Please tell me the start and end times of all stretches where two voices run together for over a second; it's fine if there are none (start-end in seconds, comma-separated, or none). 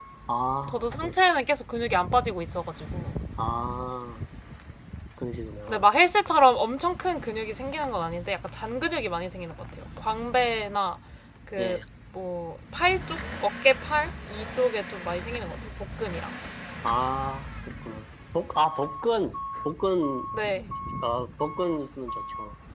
none